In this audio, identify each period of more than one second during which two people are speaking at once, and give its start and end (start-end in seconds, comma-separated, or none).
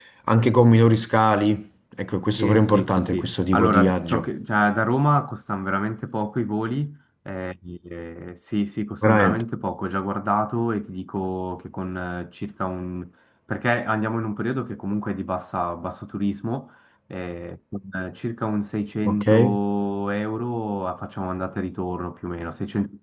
2.4-4.2